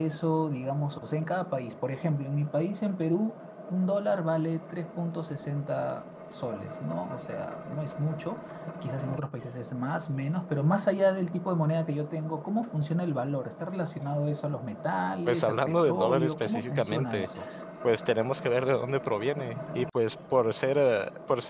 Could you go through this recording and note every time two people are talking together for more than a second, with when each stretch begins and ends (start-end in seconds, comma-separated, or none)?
15.2-17.3